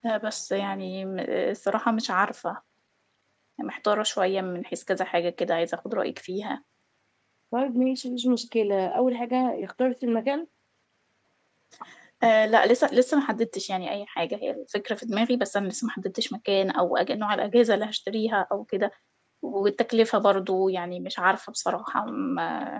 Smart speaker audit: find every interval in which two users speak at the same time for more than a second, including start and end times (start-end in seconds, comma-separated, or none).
none